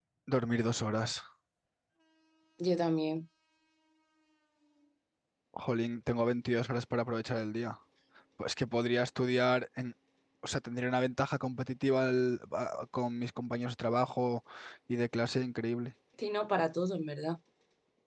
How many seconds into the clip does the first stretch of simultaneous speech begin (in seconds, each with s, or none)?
none